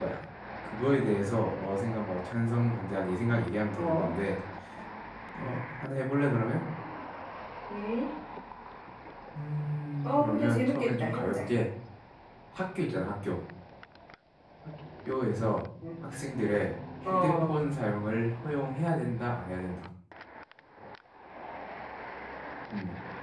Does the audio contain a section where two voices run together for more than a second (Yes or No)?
Yes